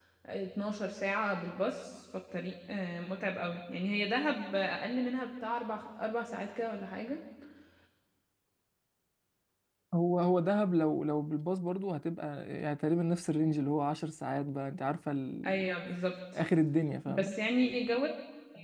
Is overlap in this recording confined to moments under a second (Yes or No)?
Yes